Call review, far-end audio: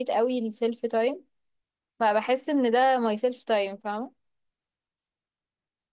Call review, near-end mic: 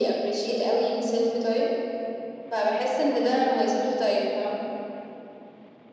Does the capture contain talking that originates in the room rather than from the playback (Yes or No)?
No